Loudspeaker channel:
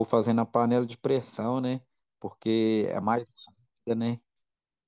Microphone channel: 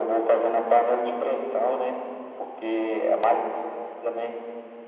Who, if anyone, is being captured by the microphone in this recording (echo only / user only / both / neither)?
both